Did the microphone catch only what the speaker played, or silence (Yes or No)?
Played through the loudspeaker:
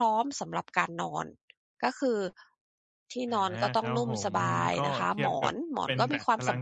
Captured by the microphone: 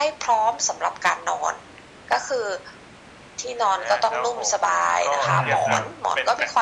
No